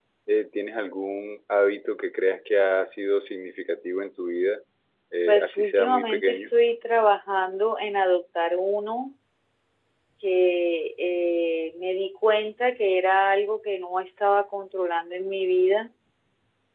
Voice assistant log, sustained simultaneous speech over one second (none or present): present